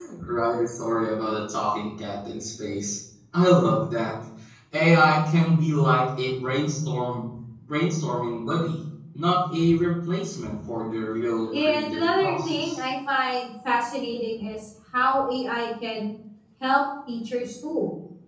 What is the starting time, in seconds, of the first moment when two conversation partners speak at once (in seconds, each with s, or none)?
11.5 s